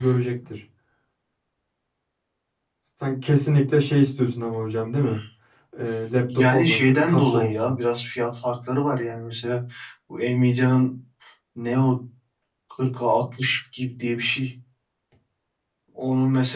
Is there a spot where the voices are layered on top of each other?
Yes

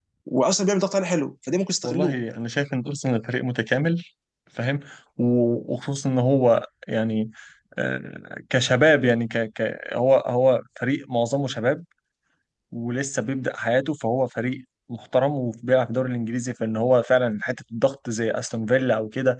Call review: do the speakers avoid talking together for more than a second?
Yes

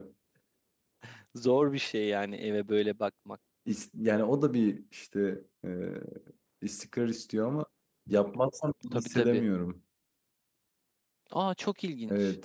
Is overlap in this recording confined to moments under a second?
Yes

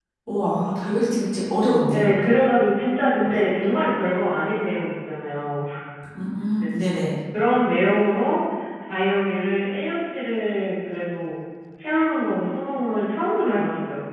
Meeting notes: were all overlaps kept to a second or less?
Yes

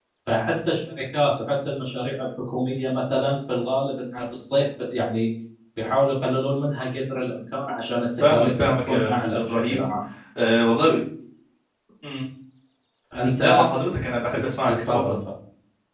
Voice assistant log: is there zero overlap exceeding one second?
No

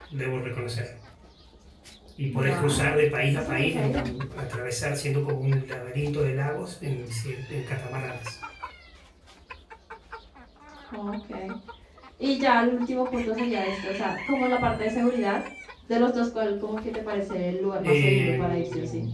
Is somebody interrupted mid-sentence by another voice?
Yes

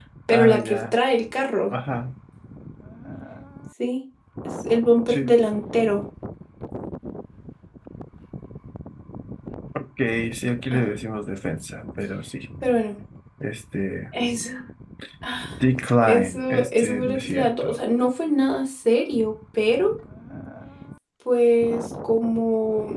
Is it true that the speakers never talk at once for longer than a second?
No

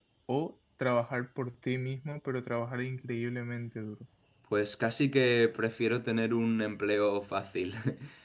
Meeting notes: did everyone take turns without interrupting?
Yes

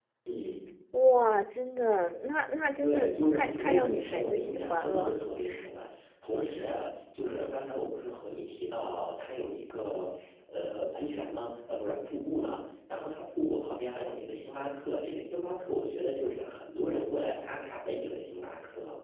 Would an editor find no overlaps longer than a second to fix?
No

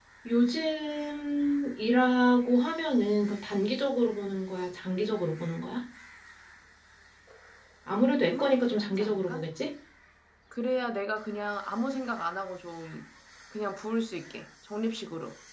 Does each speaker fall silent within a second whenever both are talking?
No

